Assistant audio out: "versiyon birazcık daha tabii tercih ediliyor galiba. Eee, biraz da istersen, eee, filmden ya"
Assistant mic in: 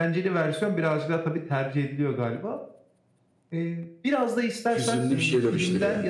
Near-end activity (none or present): present